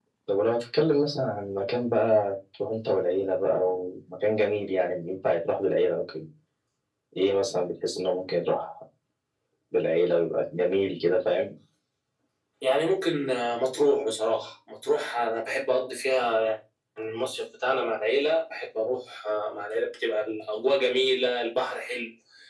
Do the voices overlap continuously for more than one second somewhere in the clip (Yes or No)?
No